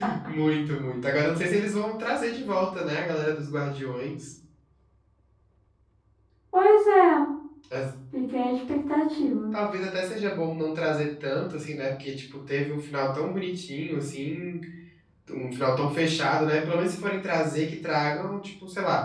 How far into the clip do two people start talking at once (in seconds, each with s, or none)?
none